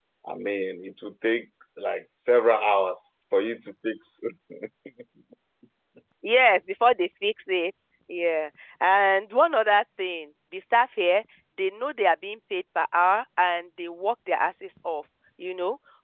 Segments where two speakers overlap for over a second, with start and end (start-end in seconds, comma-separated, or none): none